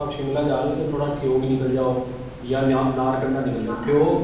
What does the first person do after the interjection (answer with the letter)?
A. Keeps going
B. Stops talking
A